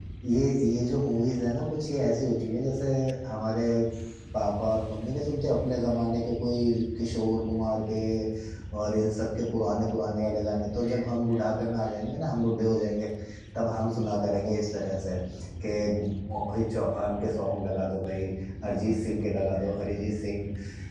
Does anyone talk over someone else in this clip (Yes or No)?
No